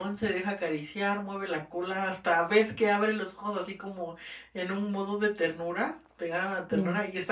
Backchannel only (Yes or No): Yes